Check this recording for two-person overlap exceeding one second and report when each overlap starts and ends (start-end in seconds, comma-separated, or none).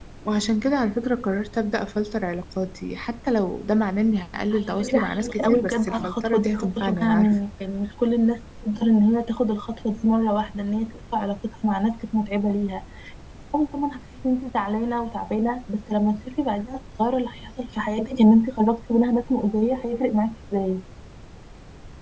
4.5-7.3